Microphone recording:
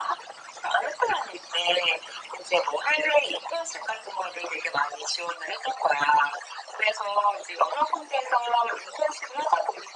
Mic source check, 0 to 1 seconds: echo only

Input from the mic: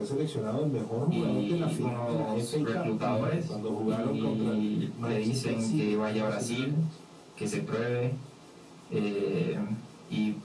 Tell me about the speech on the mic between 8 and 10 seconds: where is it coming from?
echo only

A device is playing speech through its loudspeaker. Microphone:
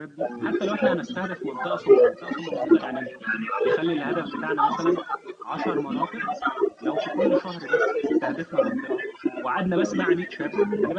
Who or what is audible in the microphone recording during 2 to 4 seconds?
both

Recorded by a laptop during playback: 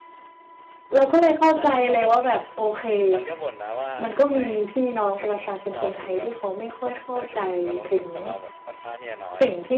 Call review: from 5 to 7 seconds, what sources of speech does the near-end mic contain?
both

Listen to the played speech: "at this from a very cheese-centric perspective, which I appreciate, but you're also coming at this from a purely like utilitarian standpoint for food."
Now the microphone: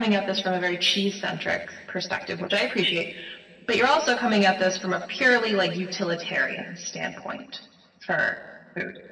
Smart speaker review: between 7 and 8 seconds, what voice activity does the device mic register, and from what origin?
echo only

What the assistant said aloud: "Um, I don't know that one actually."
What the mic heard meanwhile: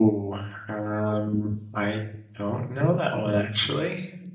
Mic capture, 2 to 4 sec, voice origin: echo only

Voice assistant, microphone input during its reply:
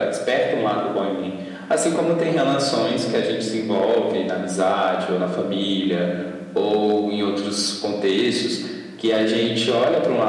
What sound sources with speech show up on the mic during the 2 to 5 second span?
echo only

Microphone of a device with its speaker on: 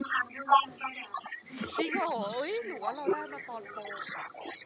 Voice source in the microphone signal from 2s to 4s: both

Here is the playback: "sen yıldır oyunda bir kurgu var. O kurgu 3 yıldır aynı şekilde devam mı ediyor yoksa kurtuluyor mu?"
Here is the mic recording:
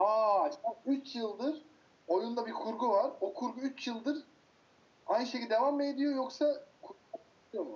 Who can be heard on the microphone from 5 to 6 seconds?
echo only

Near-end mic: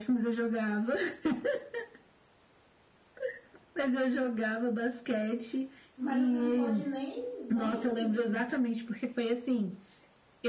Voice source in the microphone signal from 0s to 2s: echo only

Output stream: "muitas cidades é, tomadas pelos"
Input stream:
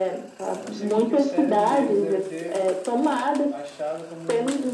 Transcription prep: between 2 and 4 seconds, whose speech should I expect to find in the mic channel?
both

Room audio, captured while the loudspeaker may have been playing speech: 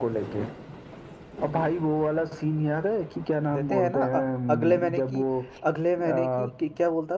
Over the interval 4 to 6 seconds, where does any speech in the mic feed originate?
both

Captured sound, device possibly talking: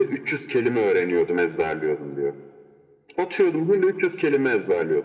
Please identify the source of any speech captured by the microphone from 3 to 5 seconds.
echo only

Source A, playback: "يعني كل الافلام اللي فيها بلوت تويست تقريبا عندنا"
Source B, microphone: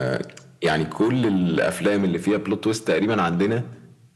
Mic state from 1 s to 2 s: echo only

